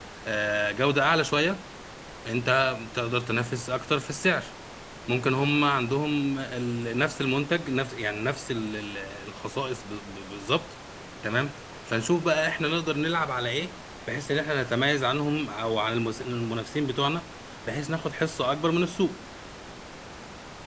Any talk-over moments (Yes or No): No